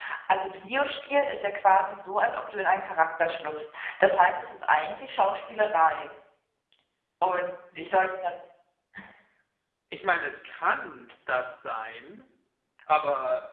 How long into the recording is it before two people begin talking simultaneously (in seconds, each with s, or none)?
none